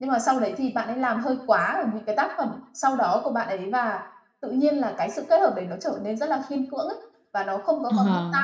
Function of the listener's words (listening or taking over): taking over